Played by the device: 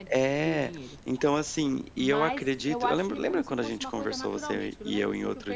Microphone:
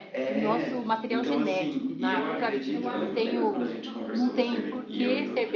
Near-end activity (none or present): present